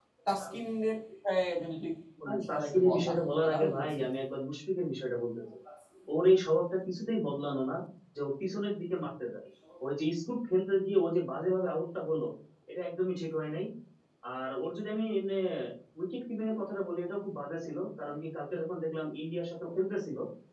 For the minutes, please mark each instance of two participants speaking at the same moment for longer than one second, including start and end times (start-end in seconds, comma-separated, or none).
2.3-4.0